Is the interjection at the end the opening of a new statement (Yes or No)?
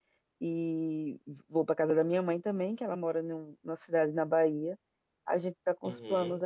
No